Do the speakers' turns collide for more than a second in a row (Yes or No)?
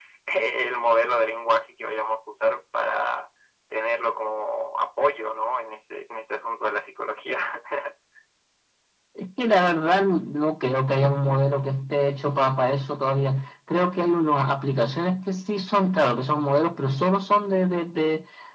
No